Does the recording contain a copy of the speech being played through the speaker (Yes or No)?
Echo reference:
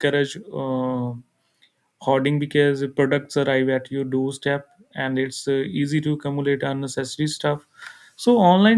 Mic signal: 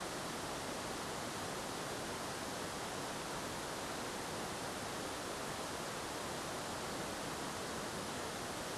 No